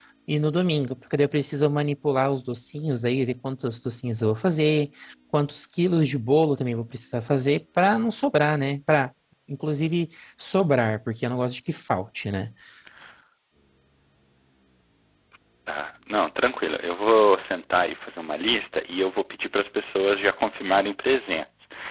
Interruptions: none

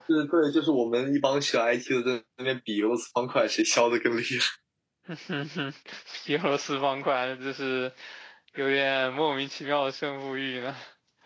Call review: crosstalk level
none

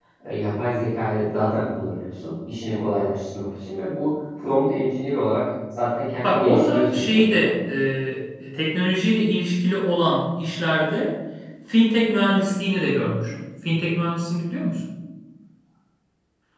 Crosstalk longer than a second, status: present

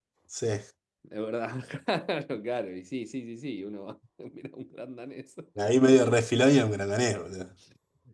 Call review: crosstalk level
none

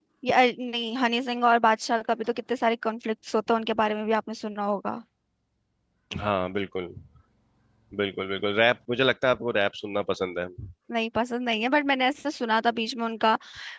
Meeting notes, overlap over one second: none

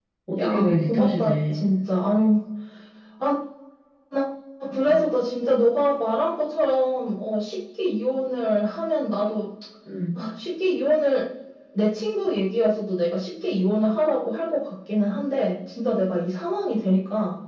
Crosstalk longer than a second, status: present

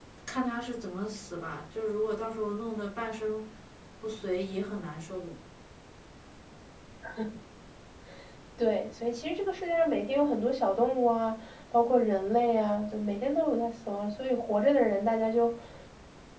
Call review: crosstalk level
none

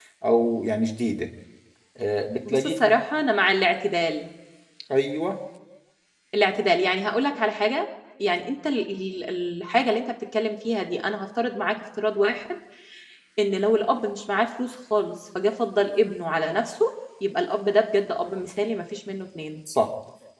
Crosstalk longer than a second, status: none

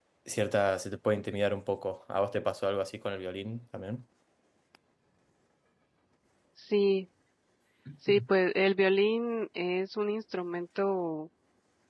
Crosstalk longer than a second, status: none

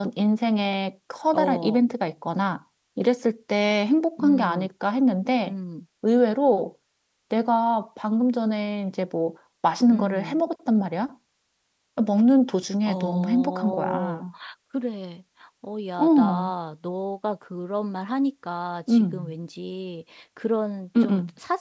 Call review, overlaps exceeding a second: present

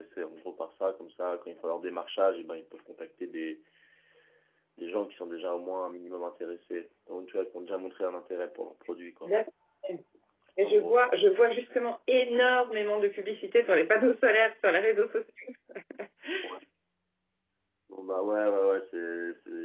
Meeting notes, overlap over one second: none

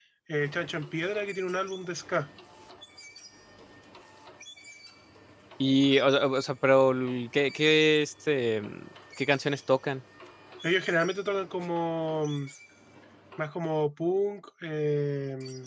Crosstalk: none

